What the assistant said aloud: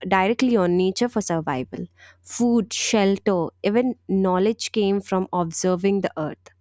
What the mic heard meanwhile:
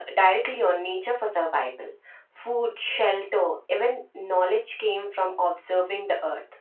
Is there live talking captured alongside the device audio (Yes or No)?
No